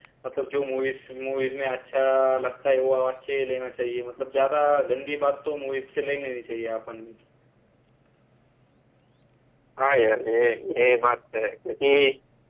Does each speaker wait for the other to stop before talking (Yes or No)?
Yes